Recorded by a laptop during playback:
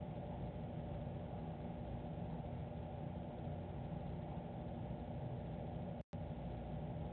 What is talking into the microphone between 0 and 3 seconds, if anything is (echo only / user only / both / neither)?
neither